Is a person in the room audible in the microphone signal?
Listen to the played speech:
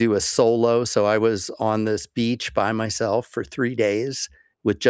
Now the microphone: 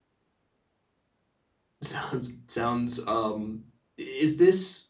Yes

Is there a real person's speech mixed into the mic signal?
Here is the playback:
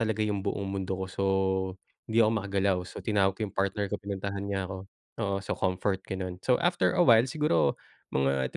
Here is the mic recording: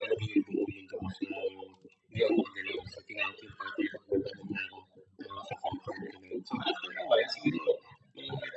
No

